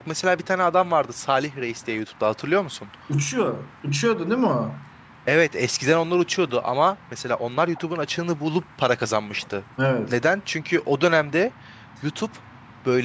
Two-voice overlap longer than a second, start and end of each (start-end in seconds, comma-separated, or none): none